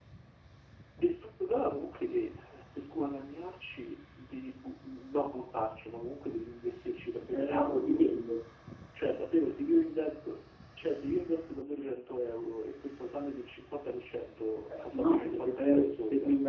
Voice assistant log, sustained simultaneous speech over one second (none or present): present